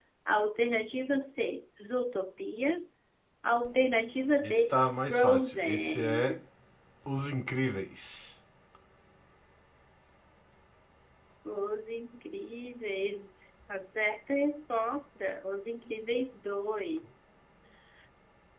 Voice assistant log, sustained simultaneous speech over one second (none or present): present